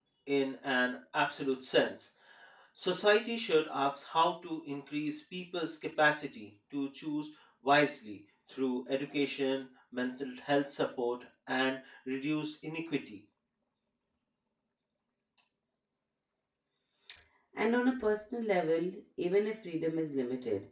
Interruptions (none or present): none